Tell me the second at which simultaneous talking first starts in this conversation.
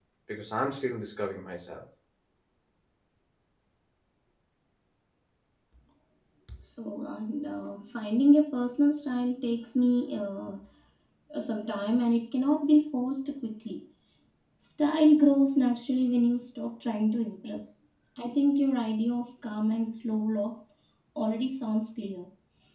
none

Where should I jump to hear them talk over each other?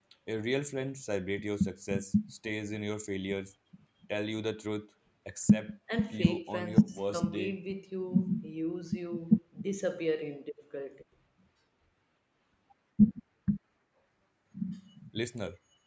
6 s

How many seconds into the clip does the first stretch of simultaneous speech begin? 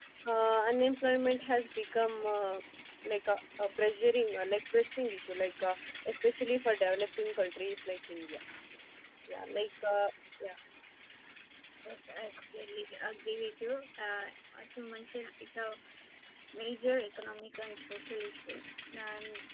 none

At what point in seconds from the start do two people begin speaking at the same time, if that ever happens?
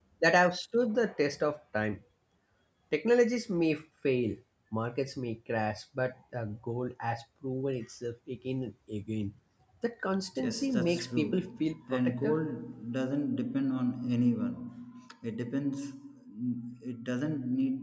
10 s

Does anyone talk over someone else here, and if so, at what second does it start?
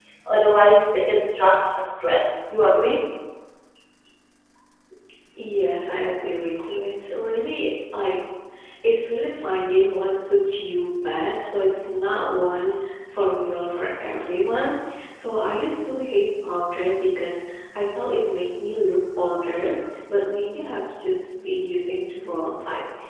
none

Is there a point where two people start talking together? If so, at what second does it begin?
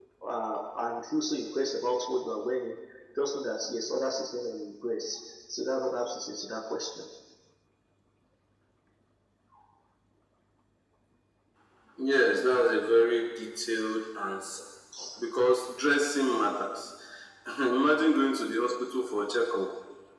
none

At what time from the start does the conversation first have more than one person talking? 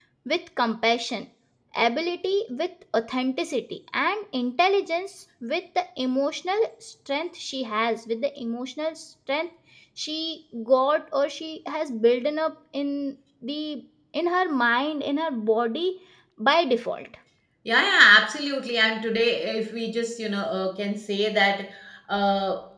none

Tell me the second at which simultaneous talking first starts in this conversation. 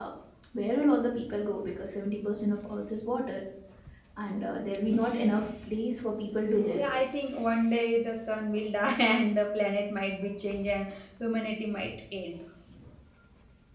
none

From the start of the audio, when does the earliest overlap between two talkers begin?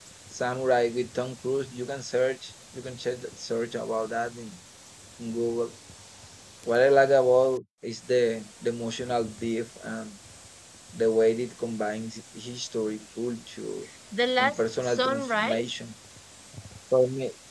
14 s

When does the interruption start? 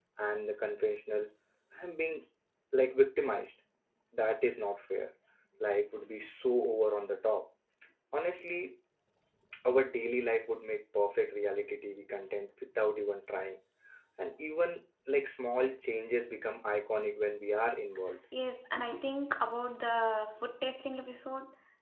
none

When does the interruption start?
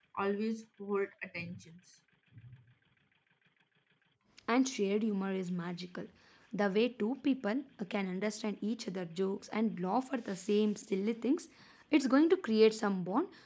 none

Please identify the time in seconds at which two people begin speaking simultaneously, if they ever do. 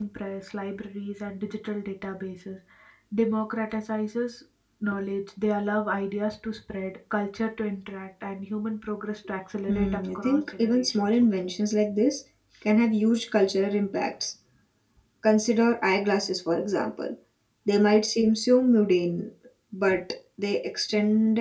10 s

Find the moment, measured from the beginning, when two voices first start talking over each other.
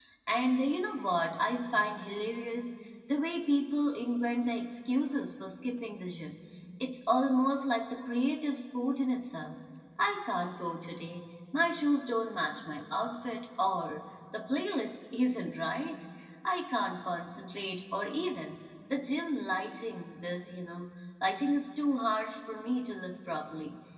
none

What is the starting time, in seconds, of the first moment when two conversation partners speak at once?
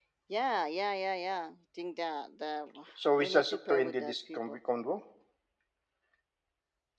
3 s

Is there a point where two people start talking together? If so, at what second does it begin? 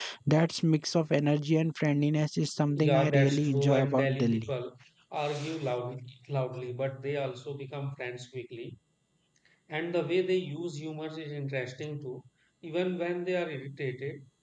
3 s

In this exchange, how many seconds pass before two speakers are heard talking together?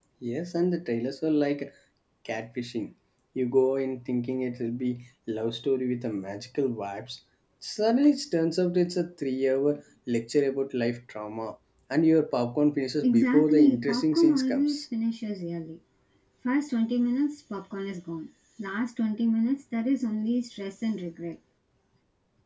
13 s

